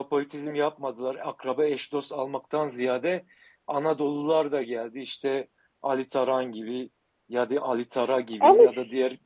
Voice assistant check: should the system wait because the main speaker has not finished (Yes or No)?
Yes